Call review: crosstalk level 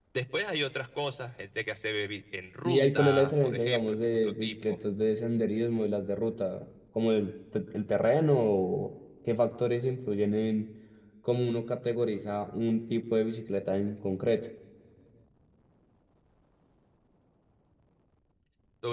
present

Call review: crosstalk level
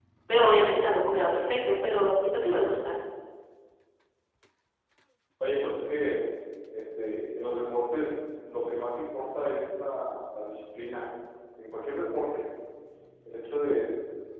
none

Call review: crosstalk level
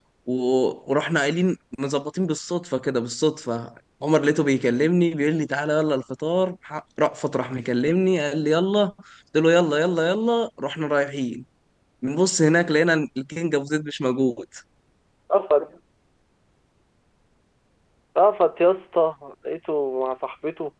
none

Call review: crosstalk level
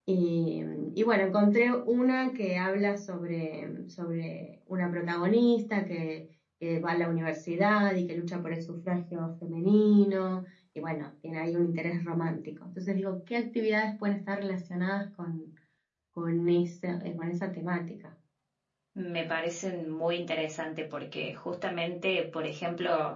none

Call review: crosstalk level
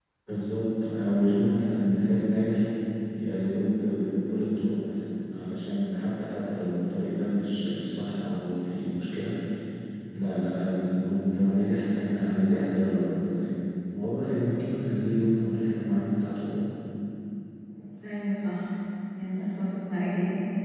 none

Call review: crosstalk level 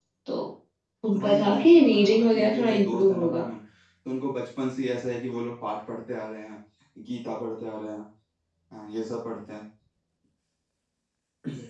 present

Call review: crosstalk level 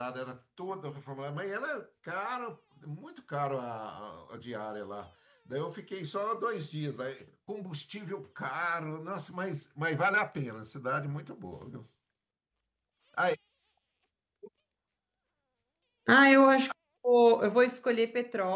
none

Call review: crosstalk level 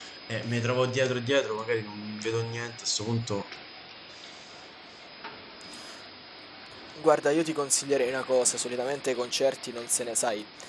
none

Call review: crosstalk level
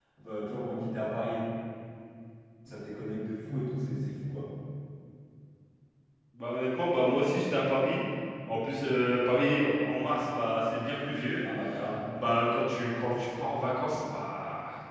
none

